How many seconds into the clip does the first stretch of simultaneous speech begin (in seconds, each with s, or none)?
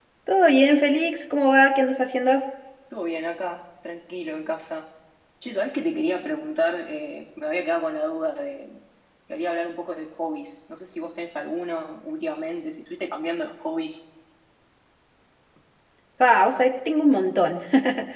none